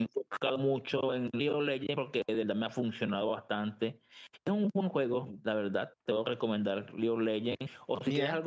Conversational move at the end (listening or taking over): listening